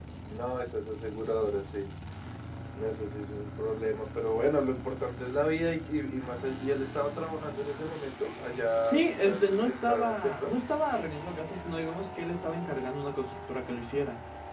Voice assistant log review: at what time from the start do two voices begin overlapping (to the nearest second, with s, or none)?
9 s